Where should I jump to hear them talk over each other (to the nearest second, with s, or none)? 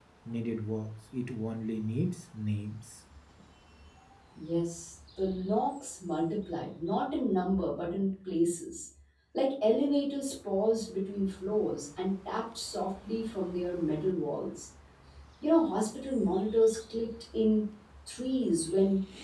none